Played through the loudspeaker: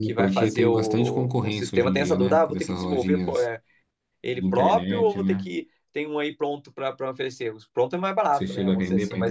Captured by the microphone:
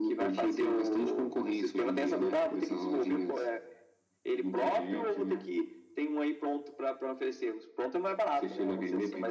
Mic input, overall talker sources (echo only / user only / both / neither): echo only